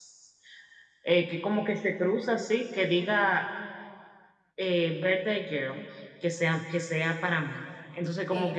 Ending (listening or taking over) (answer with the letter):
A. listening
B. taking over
B